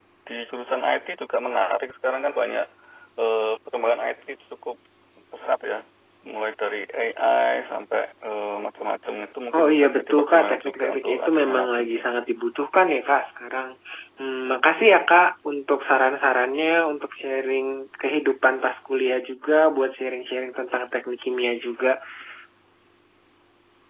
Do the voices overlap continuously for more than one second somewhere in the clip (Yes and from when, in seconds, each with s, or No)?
Yes, from 9.5 s